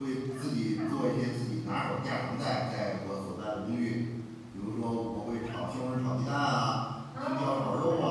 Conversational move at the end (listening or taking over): listening